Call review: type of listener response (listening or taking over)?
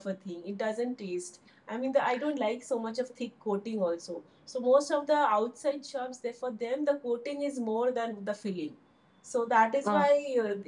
listening